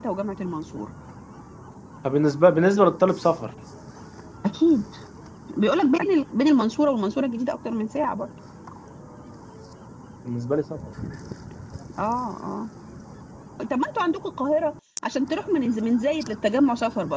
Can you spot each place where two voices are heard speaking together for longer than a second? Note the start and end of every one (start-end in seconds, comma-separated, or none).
none